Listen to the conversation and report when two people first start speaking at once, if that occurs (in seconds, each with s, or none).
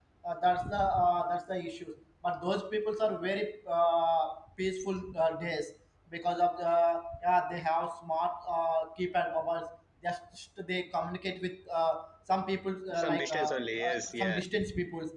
12.9 s